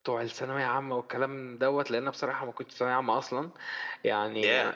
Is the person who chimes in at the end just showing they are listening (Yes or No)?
Yes